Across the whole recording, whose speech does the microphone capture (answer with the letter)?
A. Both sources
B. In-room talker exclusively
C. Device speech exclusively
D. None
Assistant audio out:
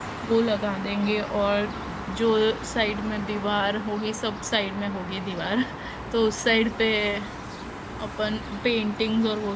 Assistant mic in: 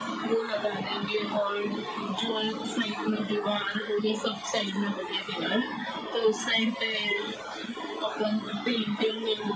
C